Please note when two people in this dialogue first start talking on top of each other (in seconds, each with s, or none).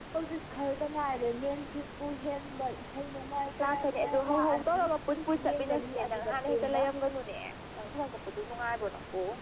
3.6 s